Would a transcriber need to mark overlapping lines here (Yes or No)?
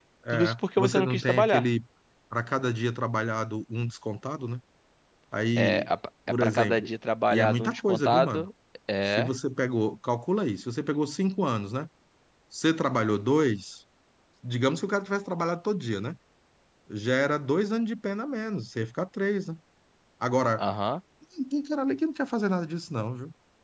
Yes